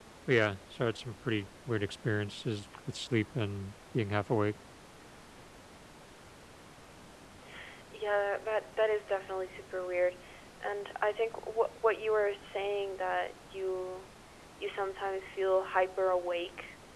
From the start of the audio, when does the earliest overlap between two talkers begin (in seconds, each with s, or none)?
none